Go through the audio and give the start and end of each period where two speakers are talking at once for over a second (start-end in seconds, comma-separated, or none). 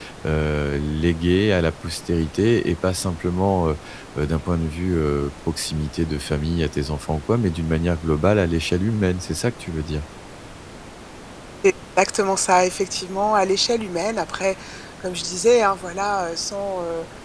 none